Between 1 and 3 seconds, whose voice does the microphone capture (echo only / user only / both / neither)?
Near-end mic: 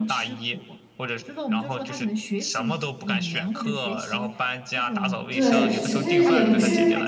echo only